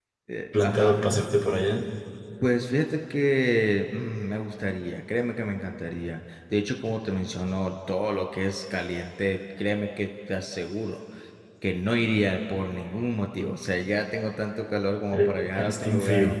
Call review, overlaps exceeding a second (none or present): present